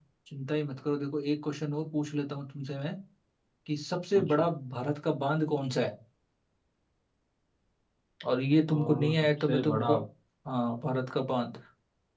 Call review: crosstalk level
present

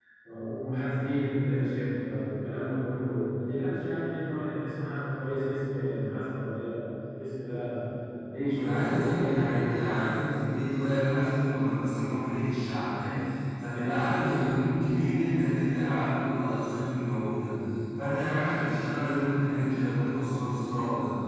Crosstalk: present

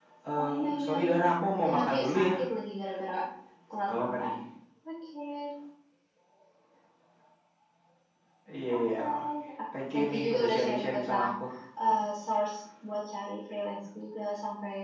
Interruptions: present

